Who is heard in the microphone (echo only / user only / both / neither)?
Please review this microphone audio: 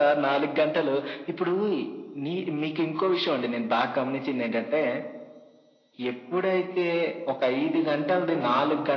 echo only